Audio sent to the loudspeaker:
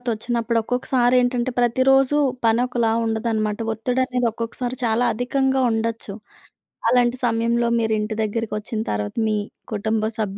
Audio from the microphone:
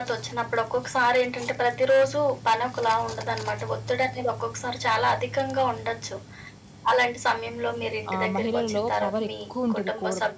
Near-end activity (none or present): present